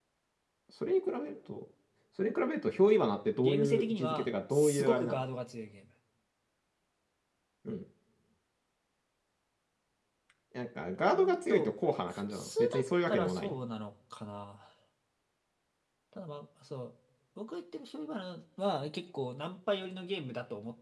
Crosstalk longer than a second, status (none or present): present